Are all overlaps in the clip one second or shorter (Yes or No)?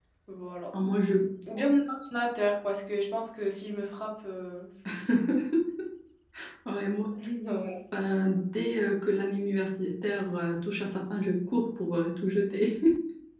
Yes